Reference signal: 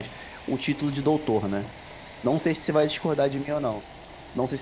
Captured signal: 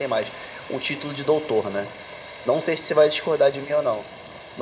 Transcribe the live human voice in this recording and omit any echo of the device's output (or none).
none